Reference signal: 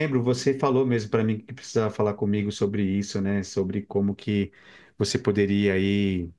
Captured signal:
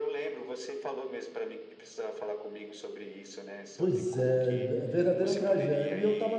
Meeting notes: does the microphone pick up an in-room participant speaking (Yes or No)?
Yes